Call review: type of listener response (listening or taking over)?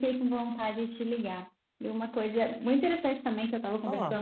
listening